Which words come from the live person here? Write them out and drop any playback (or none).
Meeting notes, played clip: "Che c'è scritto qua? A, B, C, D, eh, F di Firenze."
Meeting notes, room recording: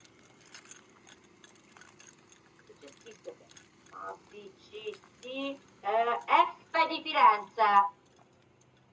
none